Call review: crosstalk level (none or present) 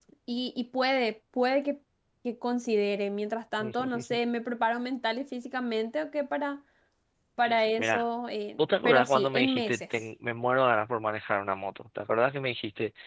present